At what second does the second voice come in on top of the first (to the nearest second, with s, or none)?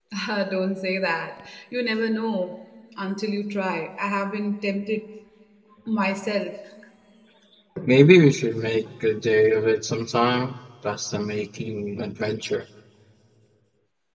none